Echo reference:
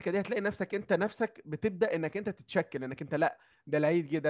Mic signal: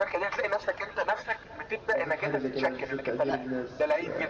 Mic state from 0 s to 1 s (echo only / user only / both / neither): echo only